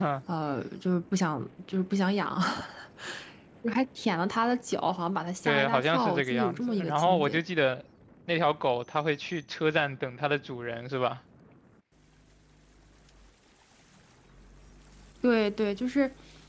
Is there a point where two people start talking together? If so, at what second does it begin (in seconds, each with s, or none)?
5.4 s